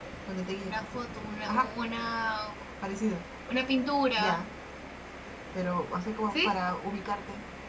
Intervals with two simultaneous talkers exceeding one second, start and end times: none

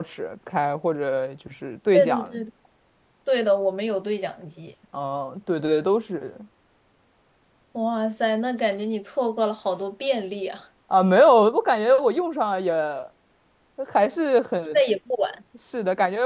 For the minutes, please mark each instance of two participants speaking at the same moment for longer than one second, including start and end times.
none

